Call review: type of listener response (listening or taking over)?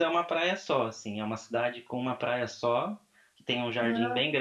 listening